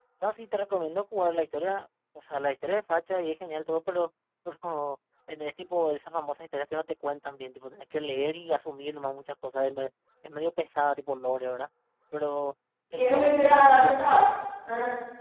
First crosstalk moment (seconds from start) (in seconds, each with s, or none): 12.9 s